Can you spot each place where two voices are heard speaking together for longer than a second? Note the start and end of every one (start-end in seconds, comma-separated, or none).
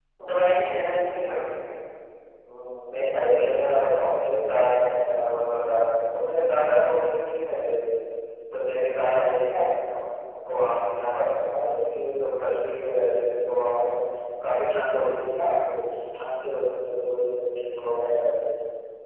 none